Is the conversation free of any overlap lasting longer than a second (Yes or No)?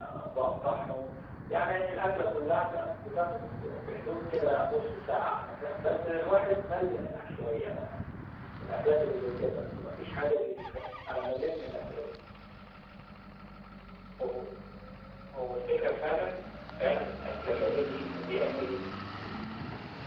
Yes